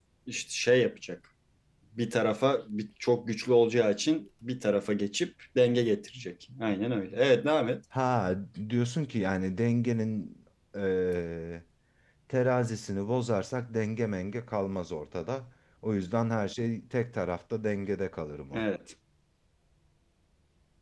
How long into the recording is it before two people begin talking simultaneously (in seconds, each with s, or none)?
none